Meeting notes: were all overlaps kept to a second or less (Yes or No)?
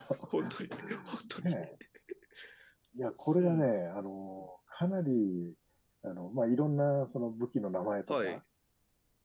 Yes